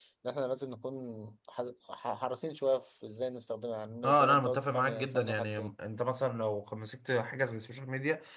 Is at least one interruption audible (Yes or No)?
Yes